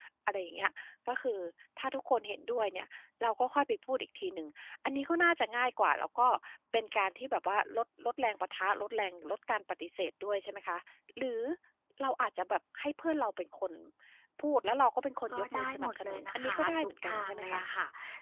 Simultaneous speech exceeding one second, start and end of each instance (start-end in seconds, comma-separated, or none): 15.3-17.6